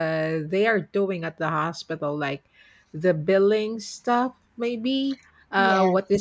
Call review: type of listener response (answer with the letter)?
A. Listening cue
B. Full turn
A